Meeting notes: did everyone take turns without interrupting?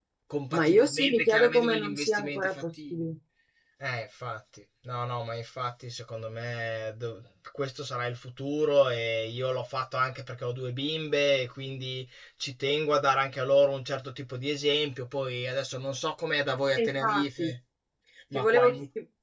No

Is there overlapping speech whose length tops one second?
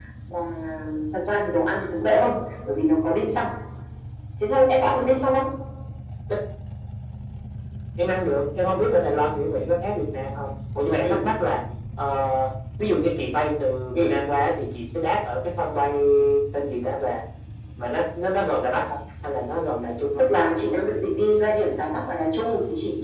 No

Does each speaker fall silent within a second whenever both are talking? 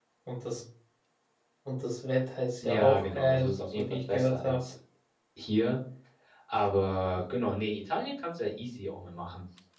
No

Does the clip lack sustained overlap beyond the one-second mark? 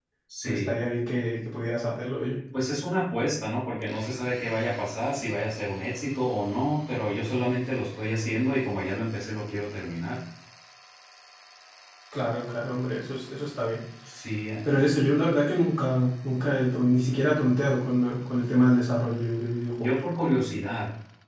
Yes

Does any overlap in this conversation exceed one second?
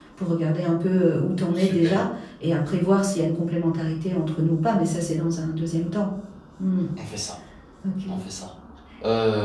No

